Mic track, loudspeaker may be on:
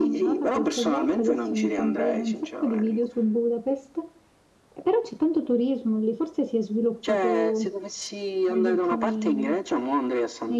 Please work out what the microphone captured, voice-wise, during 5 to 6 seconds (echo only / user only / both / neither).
user only